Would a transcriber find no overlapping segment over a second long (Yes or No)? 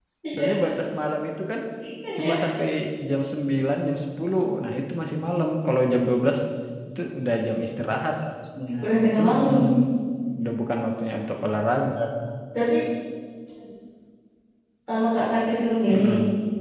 Yes